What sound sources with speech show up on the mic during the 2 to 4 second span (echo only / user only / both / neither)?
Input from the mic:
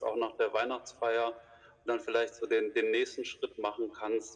echo only